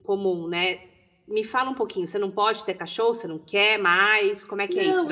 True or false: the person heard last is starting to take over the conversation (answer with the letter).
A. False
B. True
B